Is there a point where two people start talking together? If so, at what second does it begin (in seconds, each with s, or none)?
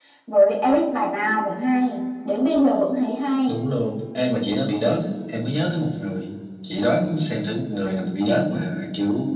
none